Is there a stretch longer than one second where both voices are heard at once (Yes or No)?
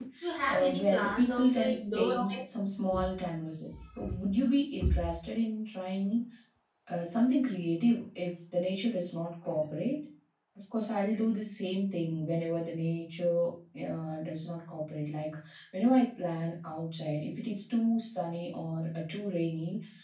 Yes